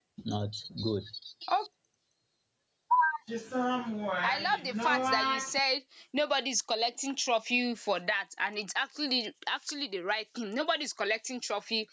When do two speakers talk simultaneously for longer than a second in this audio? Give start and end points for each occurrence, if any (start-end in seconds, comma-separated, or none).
4.2-5.6